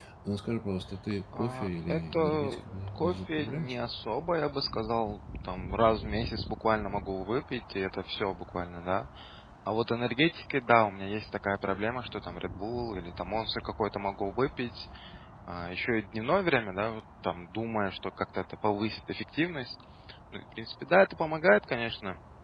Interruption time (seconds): 1.3 s

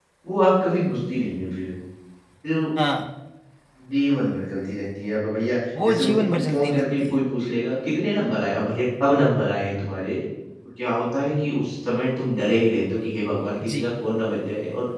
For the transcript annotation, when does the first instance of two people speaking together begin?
5.8 s

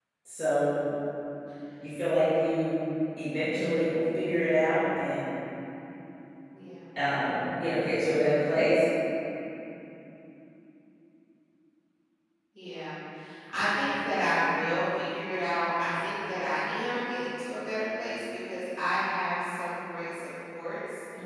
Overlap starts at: none

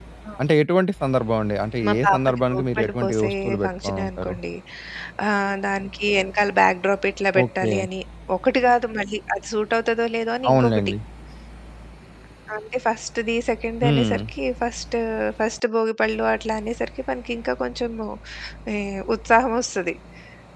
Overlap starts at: 1.8 s

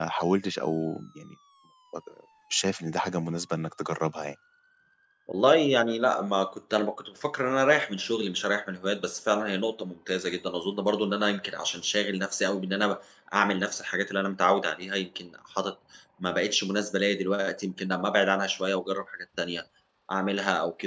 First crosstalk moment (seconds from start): none

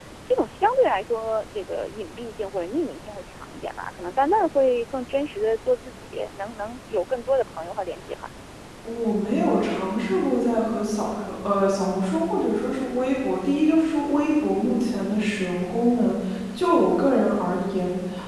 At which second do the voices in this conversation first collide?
none

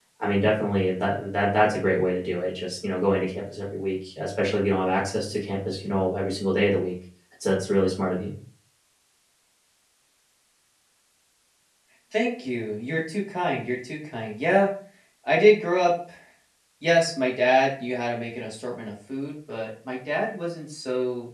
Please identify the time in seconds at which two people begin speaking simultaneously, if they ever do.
none

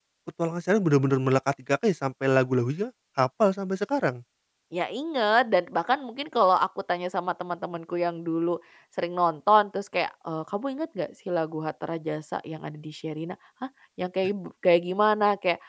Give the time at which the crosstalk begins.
none

